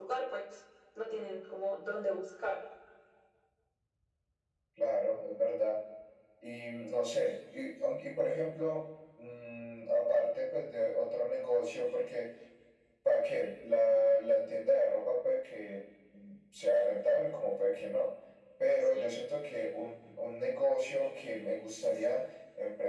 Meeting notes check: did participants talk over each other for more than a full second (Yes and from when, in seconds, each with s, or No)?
No